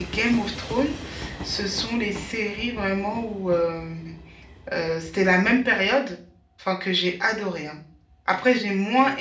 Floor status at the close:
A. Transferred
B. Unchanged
B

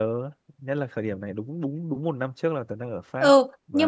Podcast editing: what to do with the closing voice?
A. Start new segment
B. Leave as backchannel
A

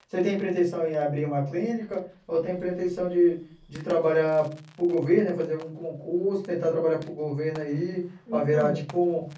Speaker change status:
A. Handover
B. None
B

